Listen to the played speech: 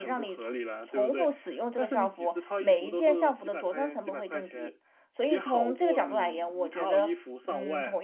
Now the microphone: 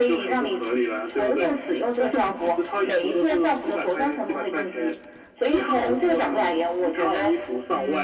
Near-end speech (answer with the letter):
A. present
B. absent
B